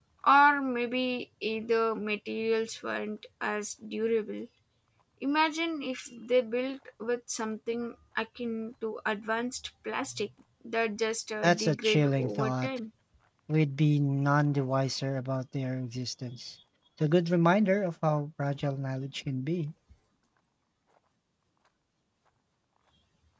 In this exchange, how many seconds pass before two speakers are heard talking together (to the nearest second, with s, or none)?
11 s